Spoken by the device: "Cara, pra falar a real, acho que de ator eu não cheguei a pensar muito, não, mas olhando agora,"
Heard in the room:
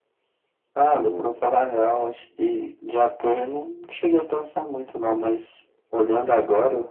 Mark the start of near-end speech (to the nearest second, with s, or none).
1 s